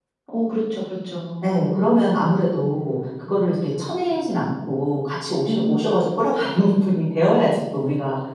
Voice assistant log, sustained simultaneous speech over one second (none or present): none